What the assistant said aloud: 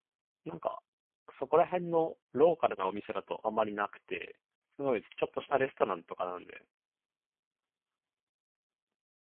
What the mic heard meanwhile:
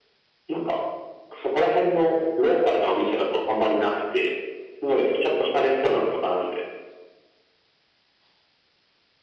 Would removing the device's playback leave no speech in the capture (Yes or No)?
Yes